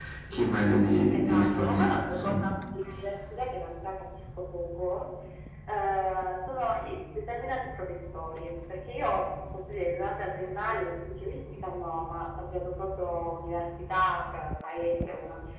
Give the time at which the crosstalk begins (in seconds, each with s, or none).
1.1 s